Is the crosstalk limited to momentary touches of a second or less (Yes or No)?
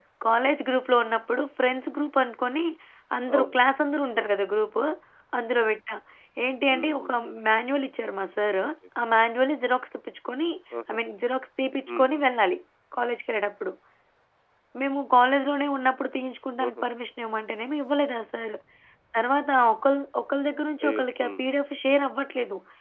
Yes